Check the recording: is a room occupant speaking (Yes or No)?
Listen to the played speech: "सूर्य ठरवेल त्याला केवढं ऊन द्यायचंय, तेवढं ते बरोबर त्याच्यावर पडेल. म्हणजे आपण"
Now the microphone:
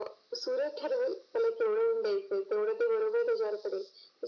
No